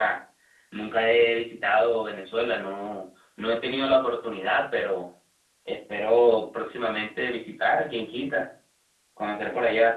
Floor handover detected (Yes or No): No